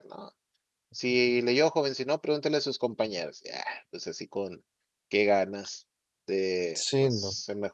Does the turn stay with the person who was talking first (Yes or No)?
Yes